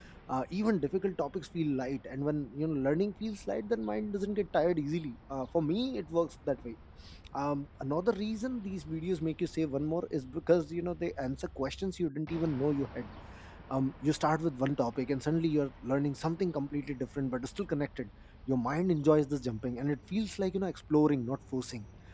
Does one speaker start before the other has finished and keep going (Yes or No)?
No